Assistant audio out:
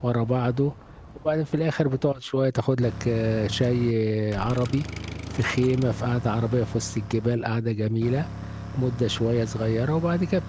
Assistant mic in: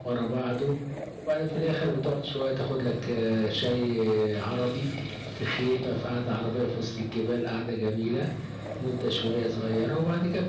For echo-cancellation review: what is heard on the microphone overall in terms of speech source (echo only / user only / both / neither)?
echo only